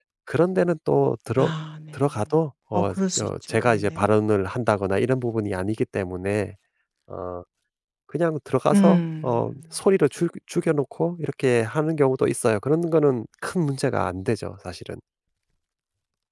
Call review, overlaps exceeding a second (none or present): present